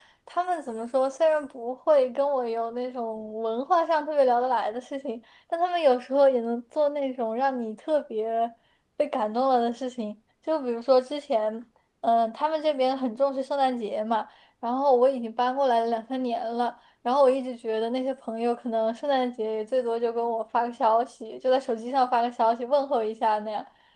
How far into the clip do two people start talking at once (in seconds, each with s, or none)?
none